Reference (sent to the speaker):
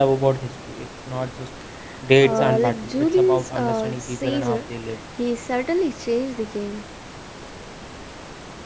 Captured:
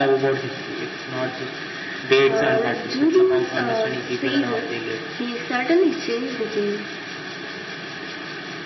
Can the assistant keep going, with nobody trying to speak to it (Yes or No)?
Yes